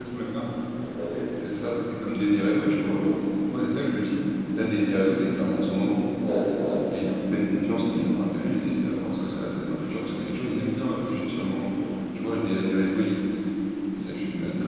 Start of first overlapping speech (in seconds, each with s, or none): none